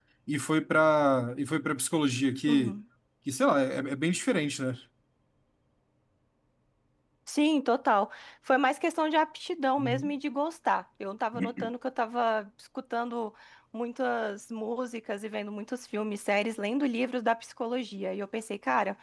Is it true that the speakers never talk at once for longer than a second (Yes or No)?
Yes